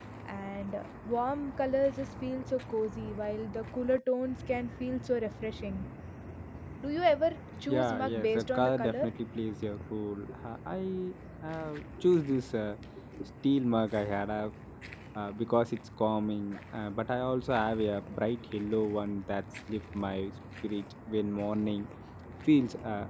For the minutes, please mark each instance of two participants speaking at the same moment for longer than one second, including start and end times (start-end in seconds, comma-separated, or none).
7.7-9.1